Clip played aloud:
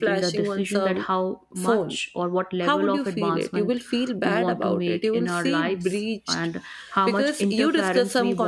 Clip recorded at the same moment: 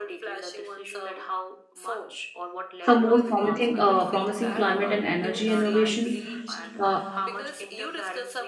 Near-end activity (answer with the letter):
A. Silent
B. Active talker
B